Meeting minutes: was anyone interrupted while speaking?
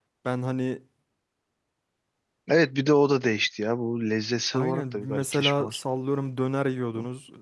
Yes, from 4.5 s

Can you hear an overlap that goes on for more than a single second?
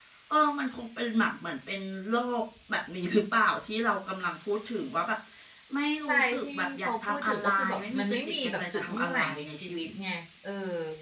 Yes, from 6.1 s

